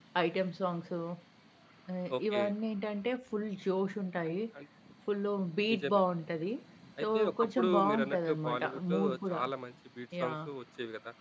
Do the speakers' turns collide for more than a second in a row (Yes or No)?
Yes